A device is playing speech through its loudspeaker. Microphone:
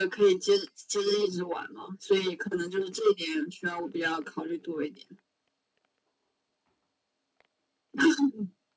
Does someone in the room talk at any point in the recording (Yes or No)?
No